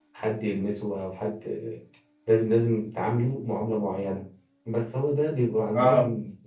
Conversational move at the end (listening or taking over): listening